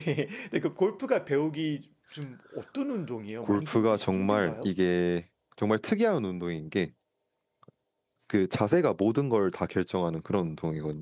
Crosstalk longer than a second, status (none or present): present